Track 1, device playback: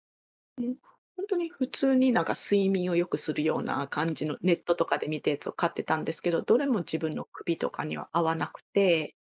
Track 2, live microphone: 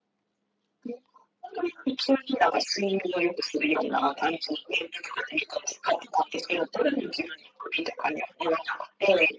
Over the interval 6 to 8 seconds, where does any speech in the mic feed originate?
echo only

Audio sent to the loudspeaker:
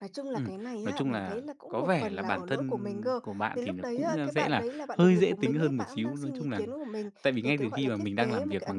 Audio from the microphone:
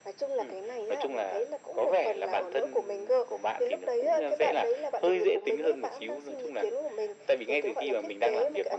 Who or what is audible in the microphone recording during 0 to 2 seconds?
echo only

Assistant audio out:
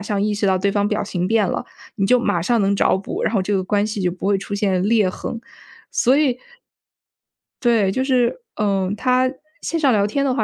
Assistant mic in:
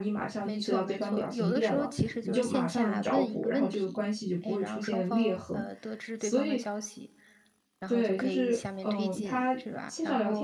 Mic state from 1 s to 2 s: both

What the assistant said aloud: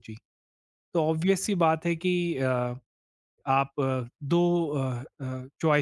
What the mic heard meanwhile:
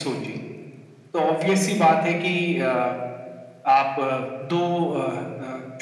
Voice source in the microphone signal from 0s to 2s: echo only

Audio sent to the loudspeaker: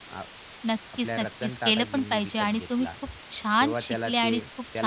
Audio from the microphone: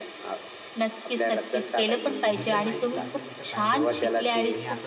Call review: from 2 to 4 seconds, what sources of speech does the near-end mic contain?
both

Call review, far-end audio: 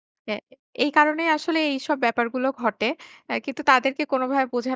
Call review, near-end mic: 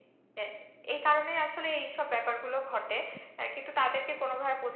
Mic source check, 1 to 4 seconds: echo only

